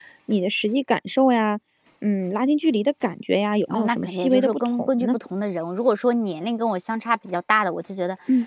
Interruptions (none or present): present